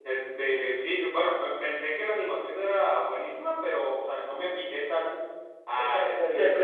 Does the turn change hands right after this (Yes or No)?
Yes